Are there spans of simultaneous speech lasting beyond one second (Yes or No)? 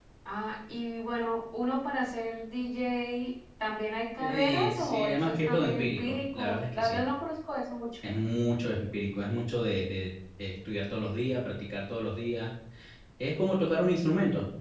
Yes